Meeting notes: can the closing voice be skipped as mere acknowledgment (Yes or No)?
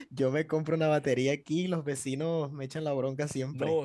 No